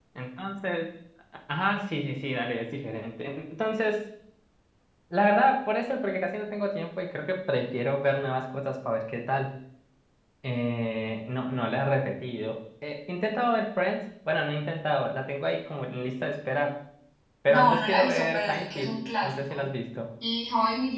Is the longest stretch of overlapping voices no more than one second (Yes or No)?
No